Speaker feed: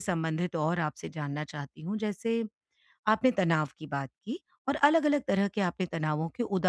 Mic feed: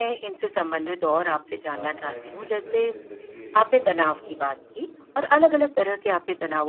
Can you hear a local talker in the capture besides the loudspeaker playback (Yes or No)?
Yes